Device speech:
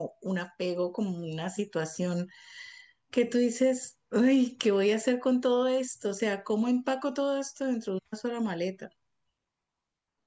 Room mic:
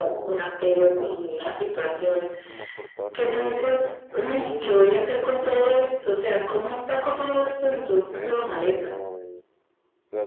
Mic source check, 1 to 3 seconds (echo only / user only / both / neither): both